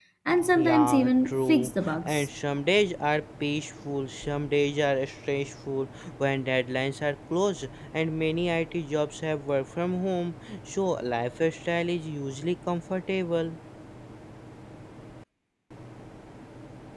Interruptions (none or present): present